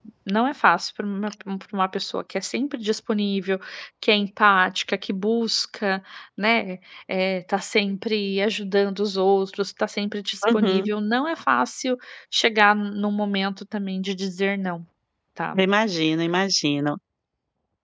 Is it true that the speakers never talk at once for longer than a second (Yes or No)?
Yes